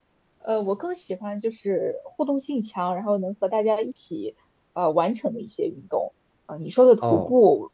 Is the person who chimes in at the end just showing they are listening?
Yes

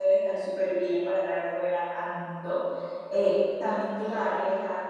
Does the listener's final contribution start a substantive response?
No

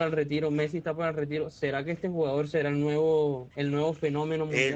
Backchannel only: No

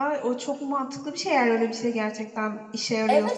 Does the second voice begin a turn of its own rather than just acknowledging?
Yes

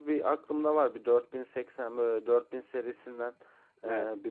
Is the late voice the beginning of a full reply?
No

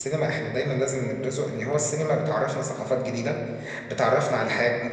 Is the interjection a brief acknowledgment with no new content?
Yes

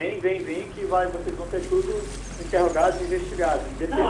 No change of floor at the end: No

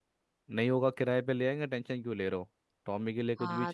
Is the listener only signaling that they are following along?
No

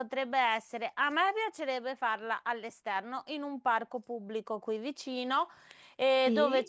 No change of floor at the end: Yes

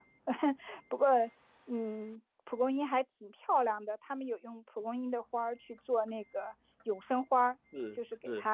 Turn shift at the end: No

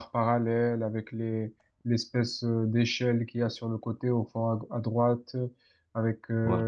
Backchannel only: Yes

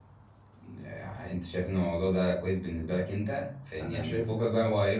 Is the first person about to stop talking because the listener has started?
No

